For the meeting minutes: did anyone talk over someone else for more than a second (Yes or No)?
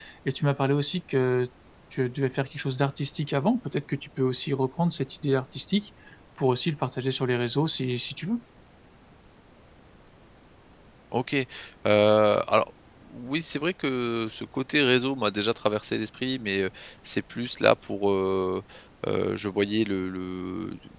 No